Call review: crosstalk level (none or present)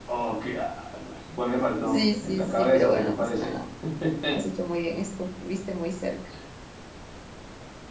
present